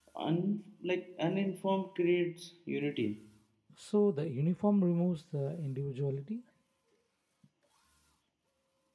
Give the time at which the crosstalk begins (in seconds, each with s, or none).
none